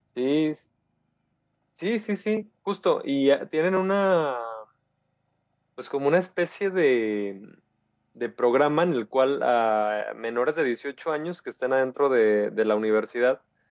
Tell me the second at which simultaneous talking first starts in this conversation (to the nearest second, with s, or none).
none